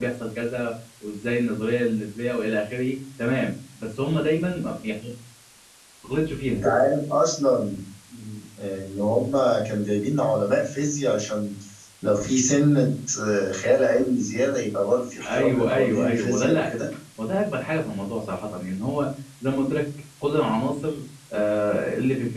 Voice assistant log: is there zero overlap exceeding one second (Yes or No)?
No